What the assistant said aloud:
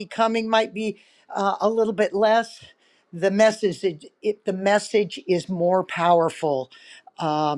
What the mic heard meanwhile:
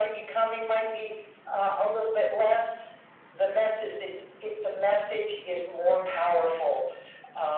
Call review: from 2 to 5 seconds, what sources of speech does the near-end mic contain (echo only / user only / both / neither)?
echo only